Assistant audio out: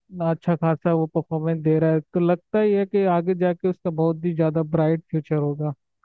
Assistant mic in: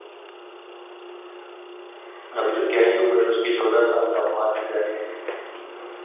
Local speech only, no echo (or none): अभी तो क्या ही उम्र है उसकी चौदह साल का मात्र है